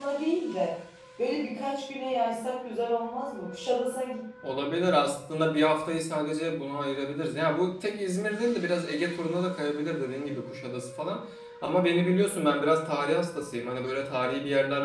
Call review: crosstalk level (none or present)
none